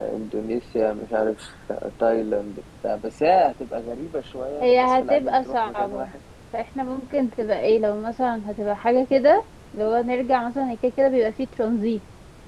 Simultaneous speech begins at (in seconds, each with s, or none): 4.6 s